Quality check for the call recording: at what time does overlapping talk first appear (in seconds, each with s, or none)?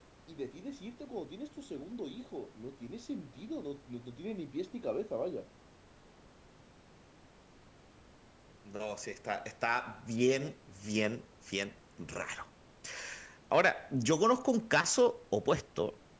none